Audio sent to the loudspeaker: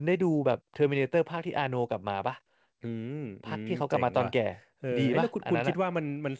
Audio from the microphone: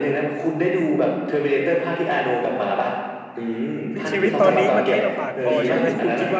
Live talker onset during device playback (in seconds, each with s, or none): 3.9 s